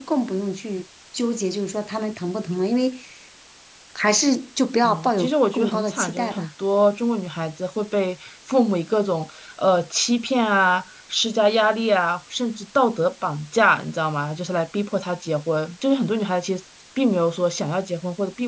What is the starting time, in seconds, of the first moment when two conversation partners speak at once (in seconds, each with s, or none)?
4.8 s